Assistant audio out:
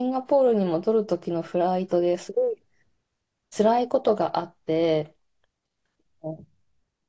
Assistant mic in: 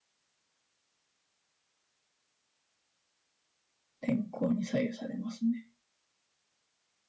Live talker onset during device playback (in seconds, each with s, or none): 4.0 s